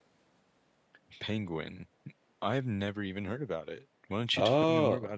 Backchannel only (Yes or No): No